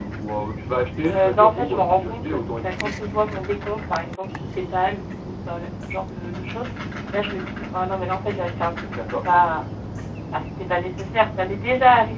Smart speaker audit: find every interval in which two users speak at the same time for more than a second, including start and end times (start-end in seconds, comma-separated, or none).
1.1-2.9